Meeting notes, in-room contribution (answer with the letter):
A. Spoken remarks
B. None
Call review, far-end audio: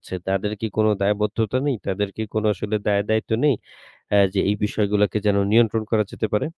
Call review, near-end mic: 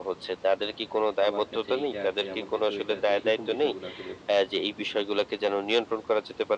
A